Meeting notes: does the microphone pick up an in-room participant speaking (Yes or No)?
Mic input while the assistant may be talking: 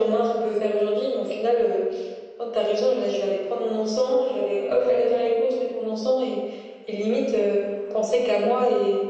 No